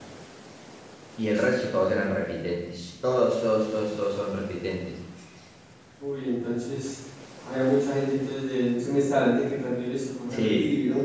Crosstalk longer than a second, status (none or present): none